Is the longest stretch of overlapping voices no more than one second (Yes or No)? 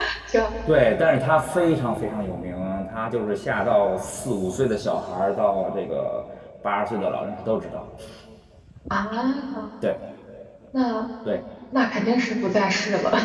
Yes